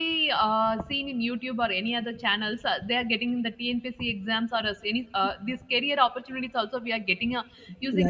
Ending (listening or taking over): taking over